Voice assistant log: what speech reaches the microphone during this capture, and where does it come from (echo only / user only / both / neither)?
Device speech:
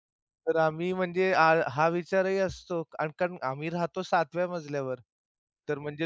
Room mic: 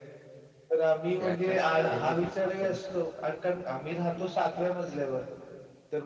both